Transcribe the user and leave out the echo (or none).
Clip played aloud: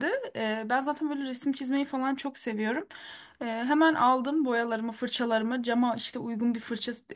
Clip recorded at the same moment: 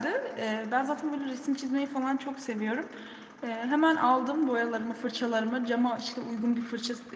none